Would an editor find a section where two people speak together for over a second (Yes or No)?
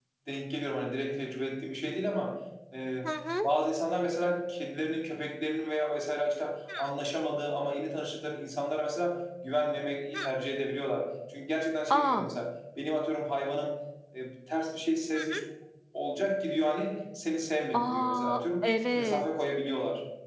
Yes